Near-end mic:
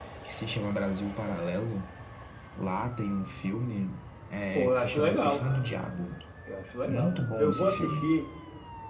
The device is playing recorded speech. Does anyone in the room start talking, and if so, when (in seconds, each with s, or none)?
4.5 s